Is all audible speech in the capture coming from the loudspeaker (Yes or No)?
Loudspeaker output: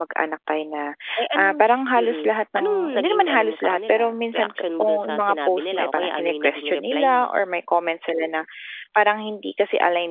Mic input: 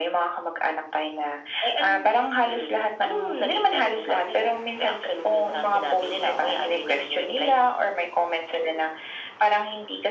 Yes